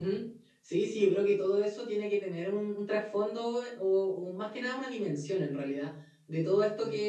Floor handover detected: No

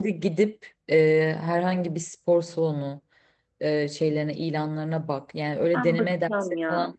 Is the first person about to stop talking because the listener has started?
Yes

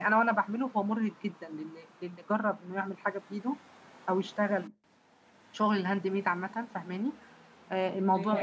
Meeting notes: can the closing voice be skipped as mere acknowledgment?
Yes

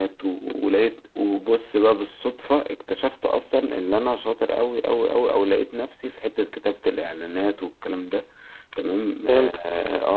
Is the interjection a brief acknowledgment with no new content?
Yes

